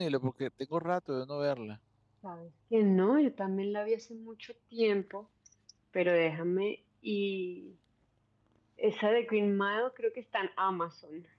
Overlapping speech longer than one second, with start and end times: none

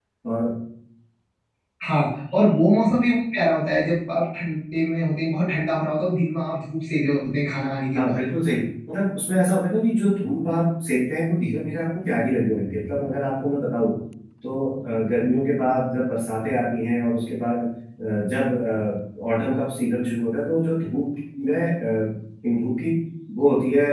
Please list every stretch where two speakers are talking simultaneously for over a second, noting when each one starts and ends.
none

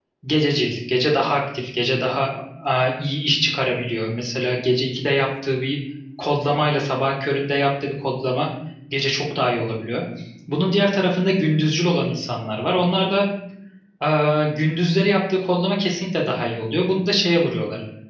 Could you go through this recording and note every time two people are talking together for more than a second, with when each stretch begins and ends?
none

